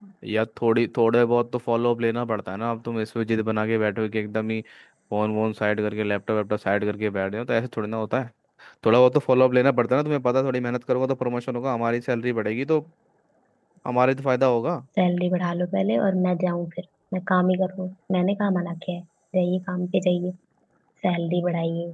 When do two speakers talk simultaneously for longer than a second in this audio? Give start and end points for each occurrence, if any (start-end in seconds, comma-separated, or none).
none